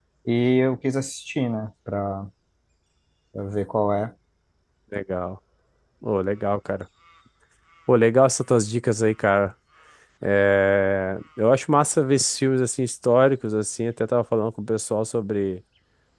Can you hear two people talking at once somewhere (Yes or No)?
No